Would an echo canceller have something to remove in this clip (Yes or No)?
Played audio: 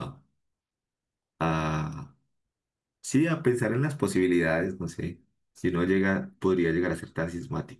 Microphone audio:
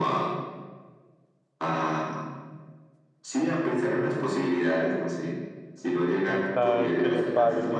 Yes